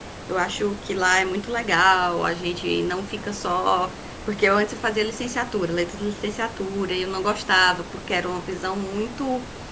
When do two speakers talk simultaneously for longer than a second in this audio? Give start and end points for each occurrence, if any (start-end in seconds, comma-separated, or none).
none